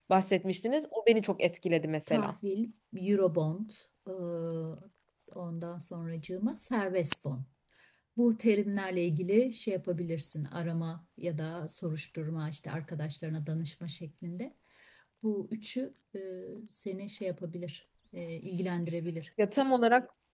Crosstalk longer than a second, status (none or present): none